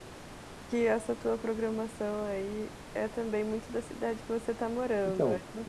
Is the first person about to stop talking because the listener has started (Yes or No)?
Yes